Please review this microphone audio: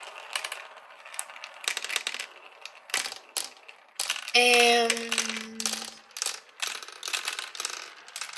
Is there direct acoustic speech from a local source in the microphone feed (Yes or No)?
Yes